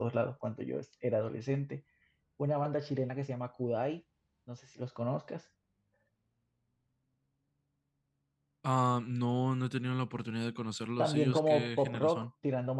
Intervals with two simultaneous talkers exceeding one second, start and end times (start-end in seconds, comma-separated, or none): 11.0-12.3